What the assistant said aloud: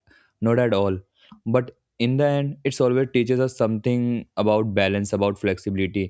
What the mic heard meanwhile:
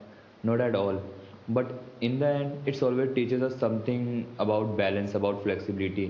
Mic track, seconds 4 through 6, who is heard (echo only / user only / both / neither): echo only